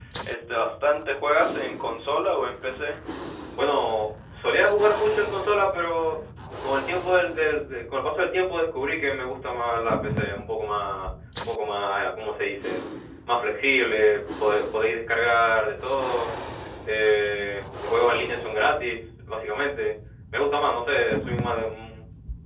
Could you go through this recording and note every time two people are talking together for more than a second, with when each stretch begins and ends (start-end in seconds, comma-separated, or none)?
none